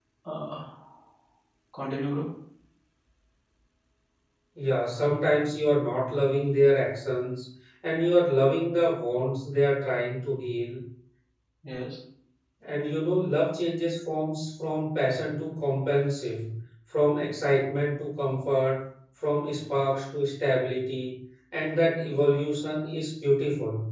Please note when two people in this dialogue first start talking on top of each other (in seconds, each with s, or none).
none